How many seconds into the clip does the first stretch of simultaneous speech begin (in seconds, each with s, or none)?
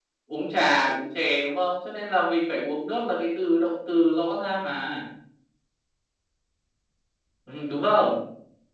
none